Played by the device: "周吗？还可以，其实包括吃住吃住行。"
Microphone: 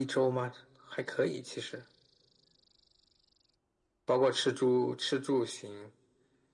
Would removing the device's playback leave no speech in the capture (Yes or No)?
Yes